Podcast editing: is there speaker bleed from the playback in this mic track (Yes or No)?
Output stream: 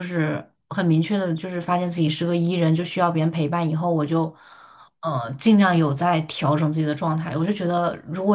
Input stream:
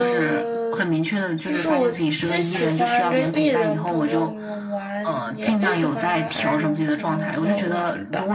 Yes